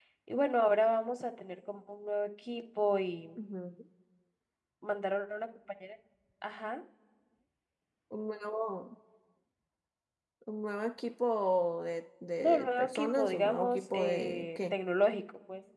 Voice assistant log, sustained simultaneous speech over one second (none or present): present